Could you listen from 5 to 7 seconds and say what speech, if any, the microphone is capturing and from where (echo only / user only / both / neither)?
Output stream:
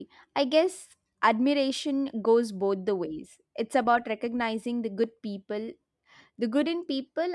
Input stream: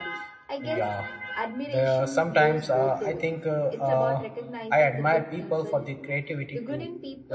both